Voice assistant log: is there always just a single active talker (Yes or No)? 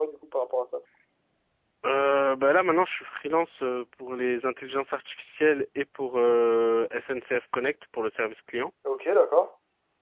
Yes